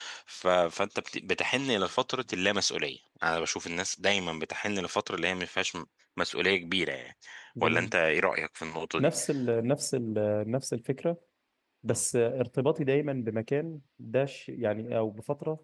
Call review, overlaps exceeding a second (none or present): none